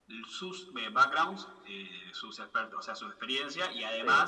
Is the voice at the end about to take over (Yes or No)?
No